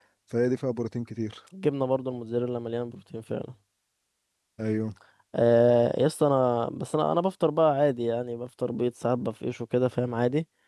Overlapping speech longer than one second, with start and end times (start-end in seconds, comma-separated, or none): none